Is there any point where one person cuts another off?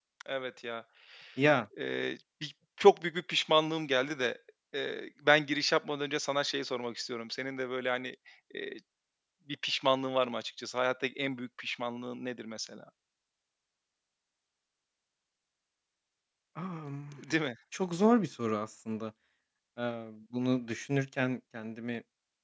No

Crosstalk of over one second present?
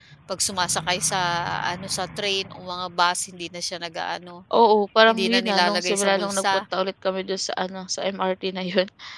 Yes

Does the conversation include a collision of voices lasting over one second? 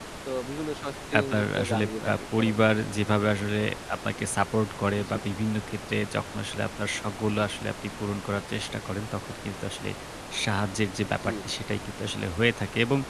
Yes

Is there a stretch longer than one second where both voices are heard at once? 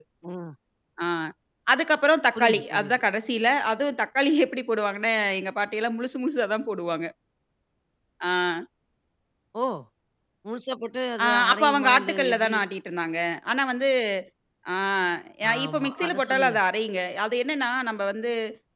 Yes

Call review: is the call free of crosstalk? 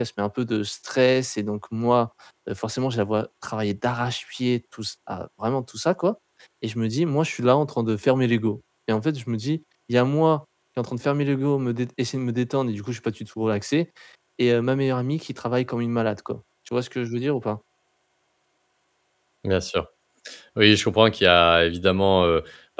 Yes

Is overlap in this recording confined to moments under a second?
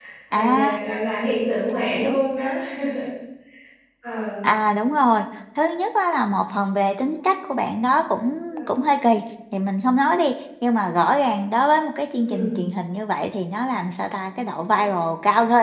Yes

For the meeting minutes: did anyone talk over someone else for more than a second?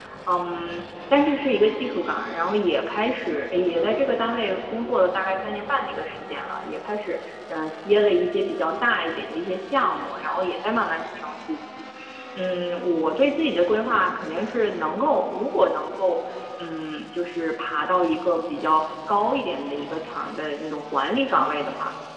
No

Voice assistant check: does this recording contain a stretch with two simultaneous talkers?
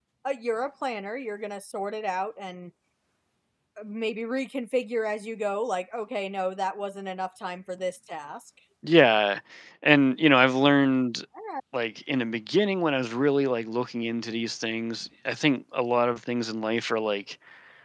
No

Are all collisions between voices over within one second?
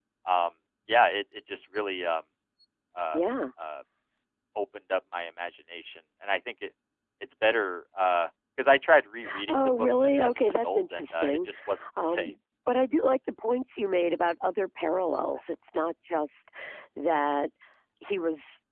No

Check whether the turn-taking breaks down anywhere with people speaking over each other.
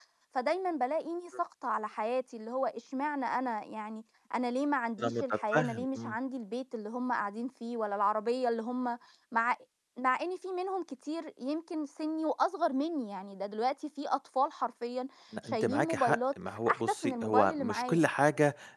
Yes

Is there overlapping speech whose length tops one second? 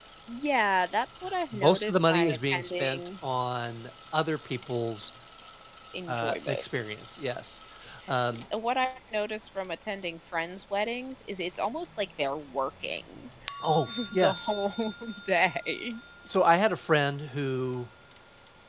Yes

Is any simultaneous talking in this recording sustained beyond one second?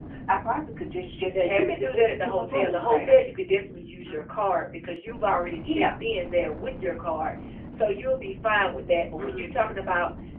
Yes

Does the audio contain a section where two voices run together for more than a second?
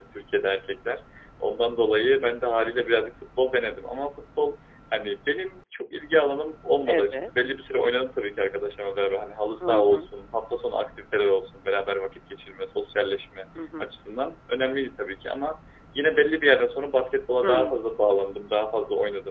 No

